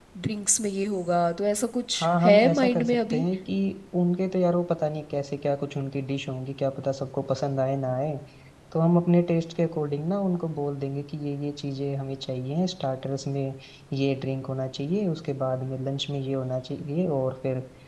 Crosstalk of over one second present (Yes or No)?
Yes